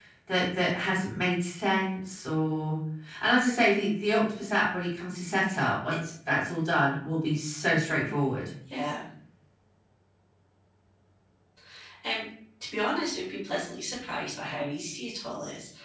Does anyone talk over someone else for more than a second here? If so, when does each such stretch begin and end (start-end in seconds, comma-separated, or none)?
none